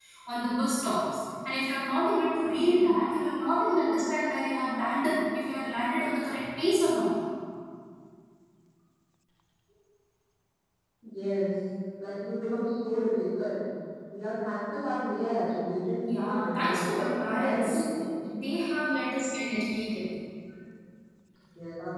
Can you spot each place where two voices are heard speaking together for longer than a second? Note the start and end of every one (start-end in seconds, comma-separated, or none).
16.0-17.8